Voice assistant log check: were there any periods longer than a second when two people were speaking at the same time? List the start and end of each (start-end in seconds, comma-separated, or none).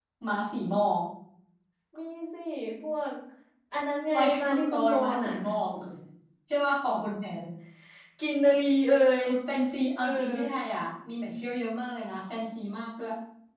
4.1-5.3